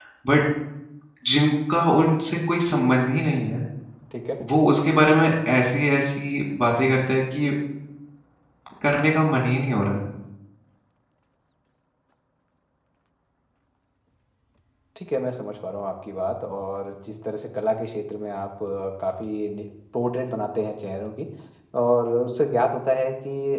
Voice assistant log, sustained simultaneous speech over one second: none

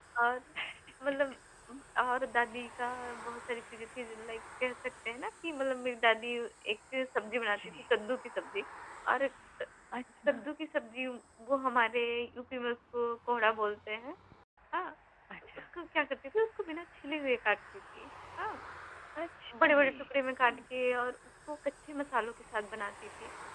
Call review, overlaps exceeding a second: none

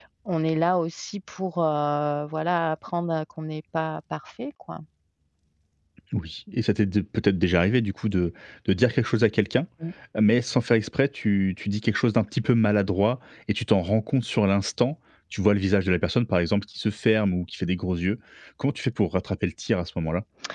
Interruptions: none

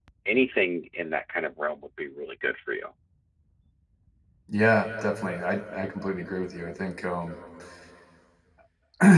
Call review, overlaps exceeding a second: none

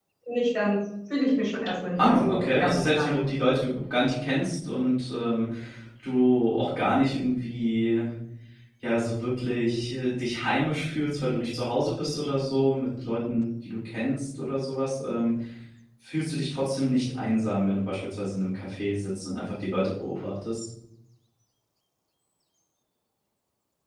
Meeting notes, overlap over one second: present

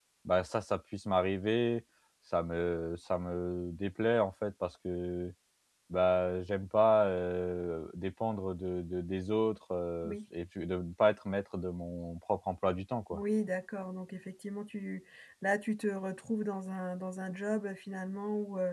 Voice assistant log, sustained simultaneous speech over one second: none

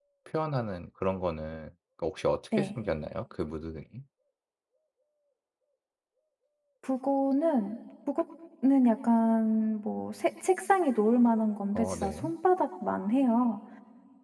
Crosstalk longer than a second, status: none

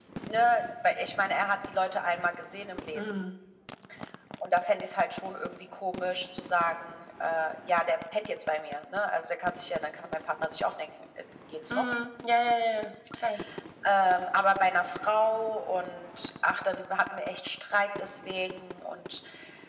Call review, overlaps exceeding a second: none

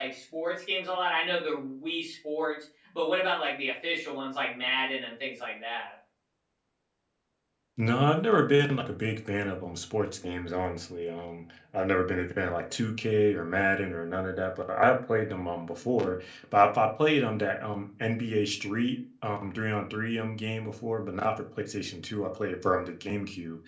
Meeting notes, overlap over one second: none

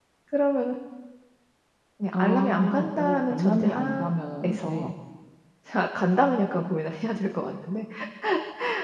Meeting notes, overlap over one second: present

